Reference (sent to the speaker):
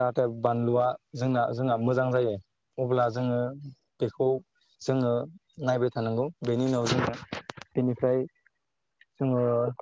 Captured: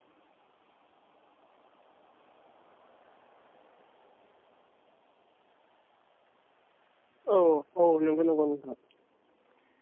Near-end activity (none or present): present